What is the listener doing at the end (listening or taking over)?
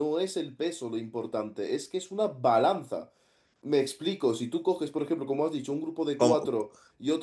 listening